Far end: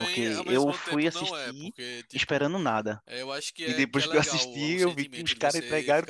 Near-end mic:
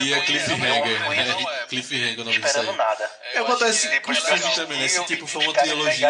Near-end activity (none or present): present